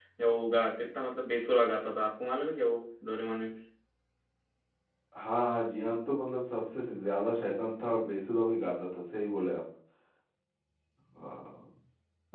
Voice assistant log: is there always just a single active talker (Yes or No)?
Yes